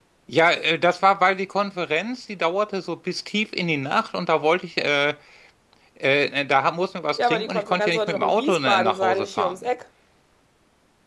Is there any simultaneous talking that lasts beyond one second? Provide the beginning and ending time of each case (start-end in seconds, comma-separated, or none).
7.2-9.5